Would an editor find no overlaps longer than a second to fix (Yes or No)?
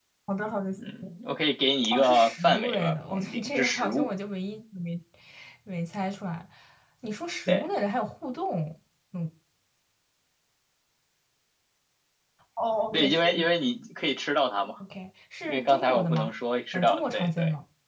No